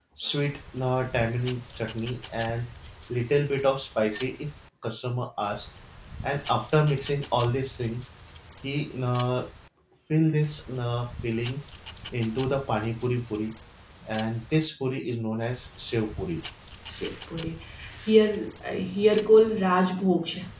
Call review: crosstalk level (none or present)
none